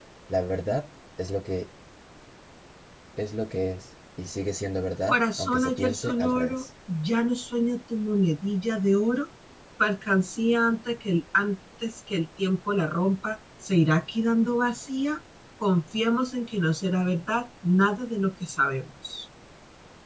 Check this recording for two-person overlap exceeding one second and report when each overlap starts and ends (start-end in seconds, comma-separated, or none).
5.1-6.6